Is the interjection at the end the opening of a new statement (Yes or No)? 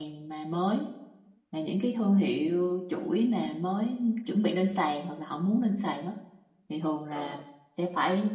No